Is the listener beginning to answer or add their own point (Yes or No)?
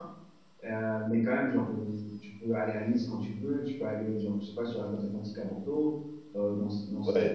Yes